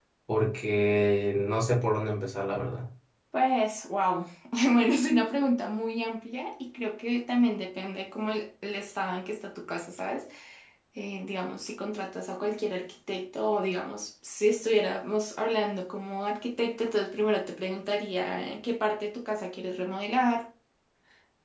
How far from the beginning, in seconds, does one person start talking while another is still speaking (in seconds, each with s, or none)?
none